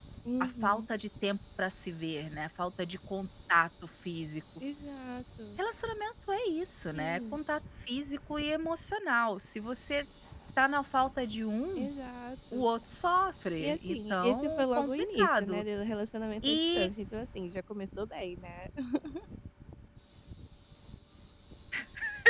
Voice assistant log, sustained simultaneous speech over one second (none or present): present